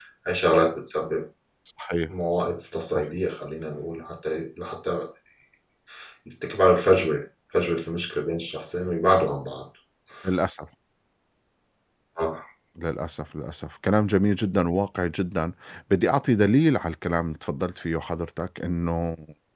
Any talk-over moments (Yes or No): No